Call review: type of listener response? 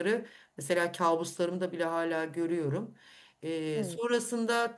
listening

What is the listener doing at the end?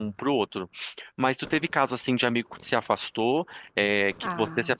listening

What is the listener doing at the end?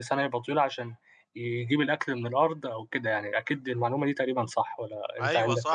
taking over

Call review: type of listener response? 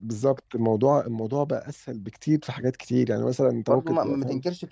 taking over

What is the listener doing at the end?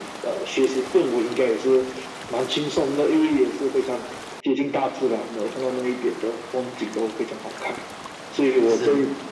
listening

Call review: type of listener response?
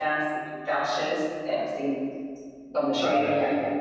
taking over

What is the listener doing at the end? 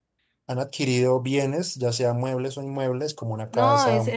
taking over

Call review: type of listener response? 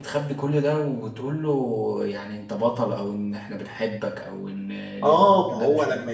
taking over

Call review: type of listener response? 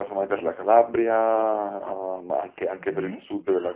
taking over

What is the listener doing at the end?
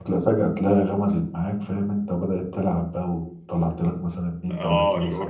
taking over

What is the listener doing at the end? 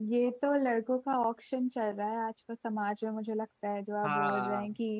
listening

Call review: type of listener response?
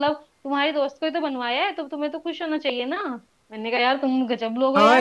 taking over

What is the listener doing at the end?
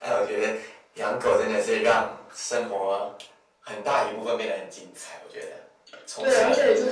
taking over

